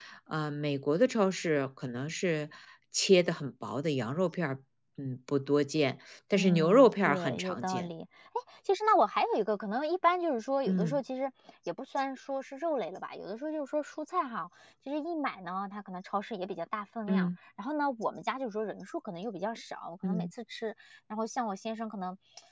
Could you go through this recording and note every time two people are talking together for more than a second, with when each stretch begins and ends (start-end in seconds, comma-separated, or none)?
6.3-7.9